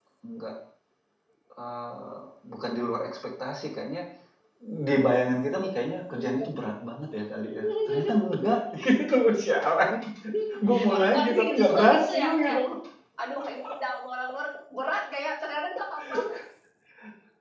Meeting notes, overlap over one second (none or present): present